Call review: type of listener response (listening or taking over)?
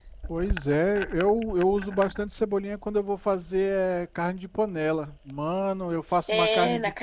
taking over